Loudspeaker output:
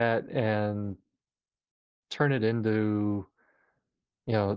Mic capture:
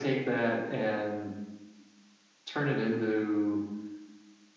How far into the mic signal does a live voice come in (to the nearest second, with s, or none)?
none